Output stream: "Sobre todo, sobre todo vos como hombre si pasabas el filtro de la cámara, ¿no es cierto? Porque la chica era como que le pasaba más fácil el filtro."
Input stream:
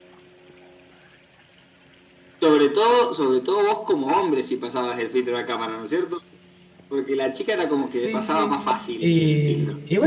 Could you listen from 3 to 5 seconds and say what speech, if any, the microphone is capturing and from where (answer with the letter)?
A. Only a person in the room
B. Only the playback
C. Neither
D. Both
B